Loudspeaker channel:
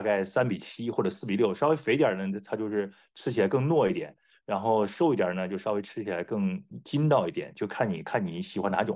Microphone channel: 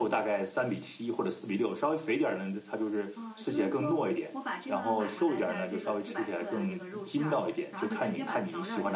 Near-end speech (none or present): present